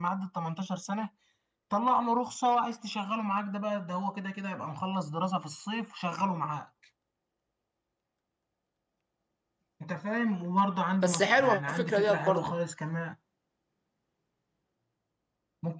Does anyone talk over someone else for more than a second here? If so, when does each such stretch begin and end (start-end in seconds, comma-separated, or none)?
11.0-12.6